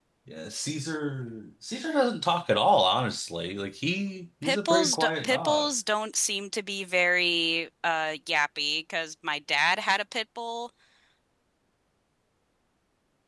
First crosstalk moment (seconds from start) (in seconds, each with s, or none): 4.4 s